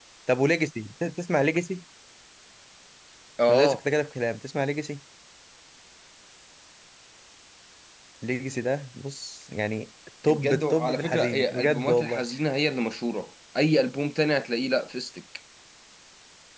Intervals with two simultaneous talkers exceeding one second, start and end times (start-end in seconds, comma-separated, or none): 10.3-12.2